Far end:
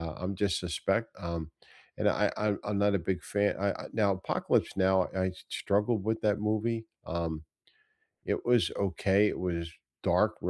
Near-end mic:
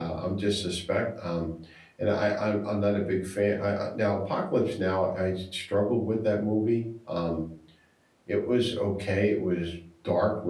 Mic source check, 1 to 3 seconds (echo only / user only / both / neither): echo only